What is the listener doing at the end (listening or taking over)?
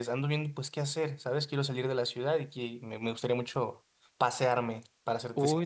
taking over